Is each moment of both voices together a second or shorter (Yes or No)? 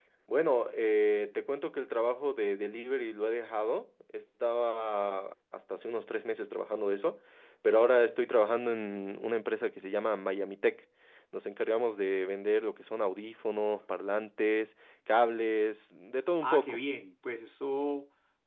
Yes